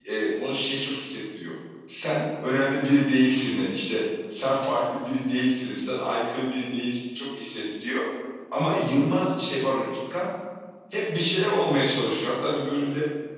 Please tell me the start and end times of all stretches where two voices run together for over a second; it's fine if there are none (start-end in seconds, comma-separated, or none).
none